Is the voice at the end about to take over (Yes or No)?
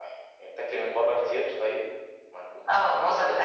Yes